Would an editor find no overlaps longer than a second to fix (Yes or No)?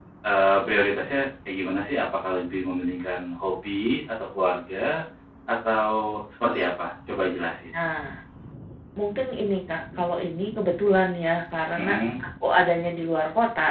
Yes